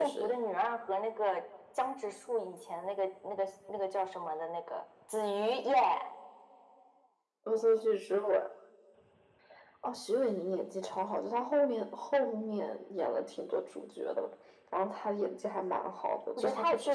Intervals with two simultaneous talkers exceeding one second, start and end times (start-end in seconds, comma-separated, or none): none